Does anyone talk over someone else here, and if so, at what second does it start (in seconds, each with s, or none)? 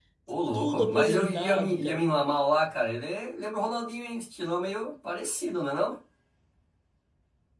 0.5 s